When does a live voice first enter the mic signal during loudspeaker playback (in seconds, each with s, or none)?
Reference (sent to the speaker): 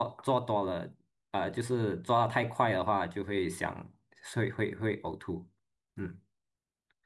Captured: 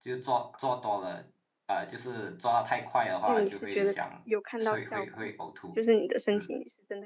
3.2 s